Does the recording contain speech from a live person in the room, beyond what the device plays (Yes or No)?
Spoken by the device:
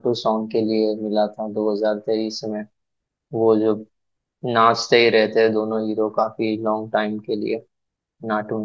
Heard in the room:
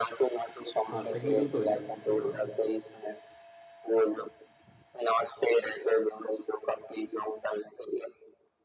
Yes